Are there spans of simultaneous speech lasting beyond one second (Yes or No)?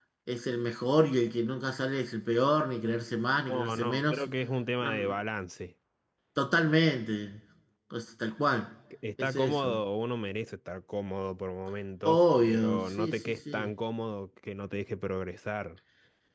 Yes